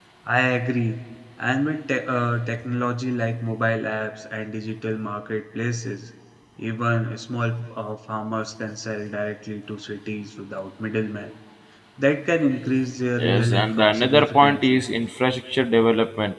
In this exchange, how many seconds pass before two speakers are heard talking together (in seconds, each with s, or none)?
13.2 s